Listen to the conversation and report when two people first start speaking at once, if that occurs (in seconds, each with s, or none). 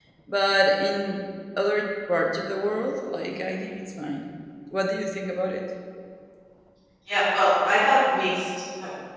none